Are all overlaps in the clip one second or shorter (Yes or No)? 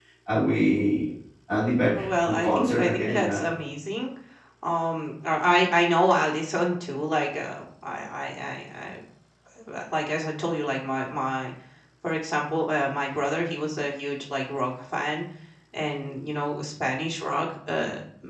No